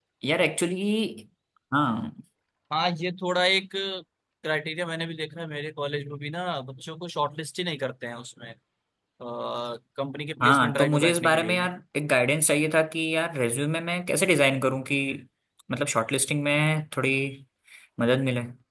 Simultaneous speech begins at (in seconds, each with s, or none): 10.4 s